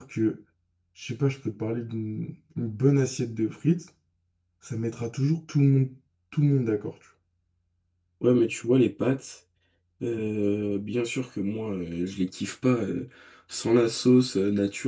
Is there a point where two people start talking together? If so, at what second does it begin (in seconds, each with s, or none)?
none